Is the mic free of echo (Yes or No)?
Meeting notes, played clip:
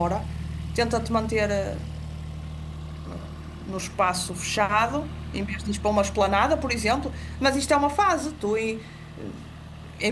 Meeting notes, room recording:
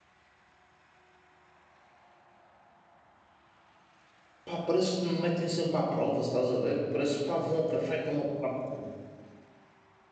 Yes